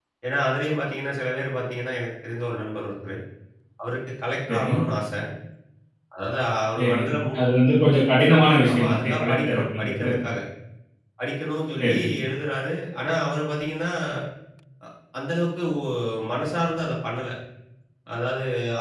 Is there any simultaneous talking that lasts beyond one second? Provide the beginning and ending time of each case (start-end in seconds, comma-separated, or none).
8.7-10.1